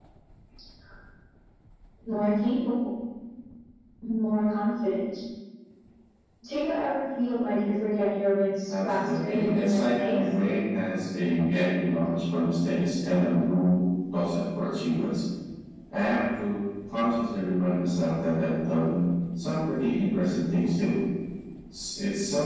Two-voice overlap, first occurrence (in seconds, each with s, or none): 8.7 s